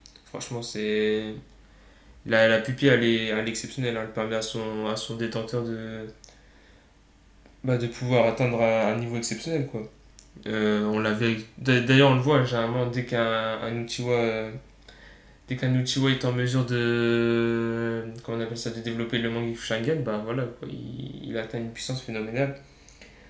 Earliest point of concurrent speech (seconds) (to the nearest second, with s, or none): none